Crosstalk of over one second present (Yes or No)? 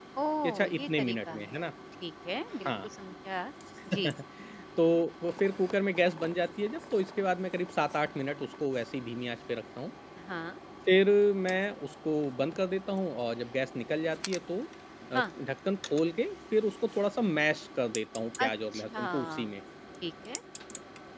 Yes